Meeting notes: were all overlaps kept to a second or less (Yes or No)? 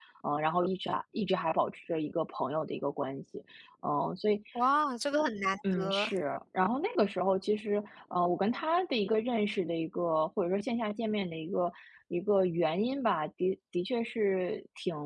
Yes